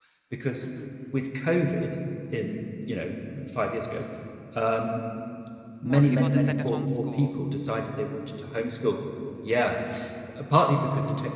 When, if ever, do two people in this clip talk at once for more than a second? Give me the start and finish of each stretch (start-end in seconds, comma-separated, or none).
5.8-7.4